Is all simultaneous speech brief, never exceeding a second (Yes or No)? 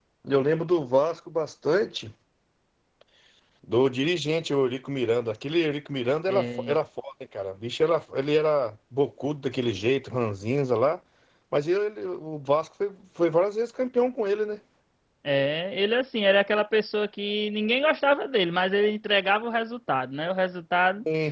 Yes